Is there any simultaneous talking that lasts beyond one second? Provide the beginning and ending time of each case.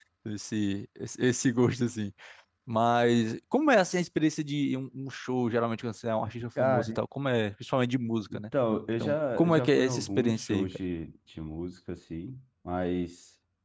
9.0-10.7

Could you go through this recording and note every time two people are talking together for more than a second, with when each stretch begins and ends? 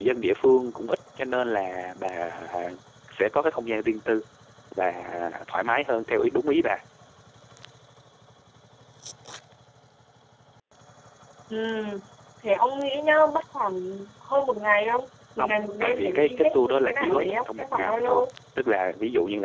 15.4-18.3

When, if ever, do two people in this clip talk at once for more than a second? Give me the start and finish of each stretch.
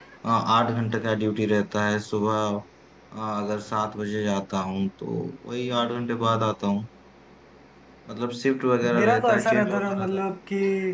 8.9-10.2

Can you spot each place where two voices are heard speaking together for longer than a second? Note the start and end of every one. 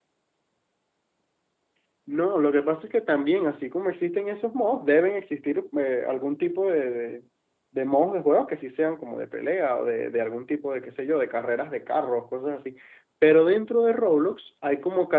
none

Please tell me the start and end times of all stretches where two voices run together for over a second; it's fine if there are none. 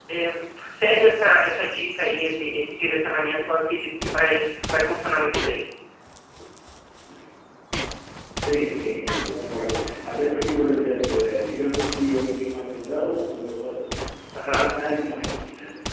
none

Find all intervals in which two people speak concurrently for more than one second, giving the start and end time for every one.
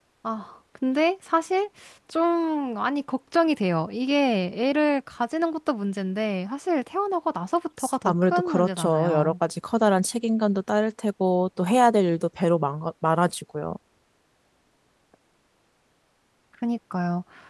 8.1-9.3

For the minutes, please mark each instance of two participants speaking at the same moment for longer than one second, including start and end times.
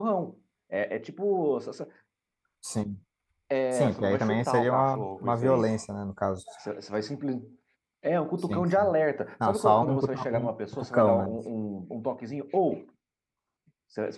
3.7-5.7, 9.5-11.3

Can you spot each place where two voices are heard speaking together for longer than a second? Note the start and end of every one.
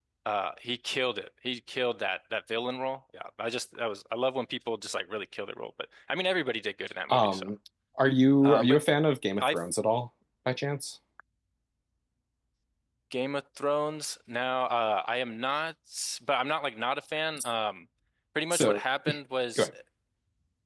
none

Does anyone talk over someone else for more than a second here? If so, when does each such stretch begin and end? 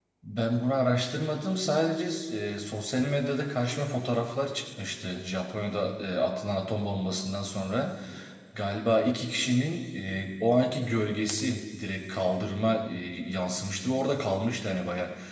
none

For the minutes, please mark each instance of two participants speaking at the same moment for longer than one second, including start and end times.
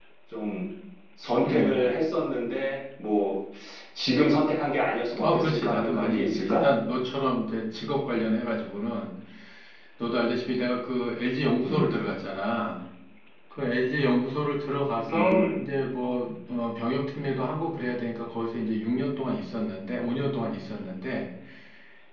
5.2-6.6

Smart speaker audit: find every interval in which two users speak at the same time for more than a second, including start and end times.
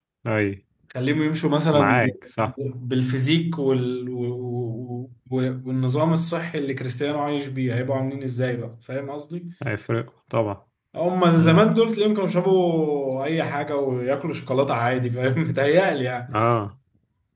none

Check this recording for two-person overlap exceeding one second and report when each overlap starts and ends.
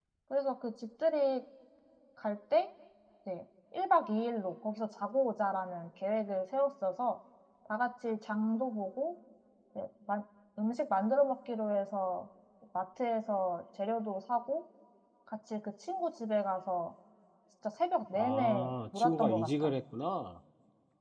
18.1-19.7

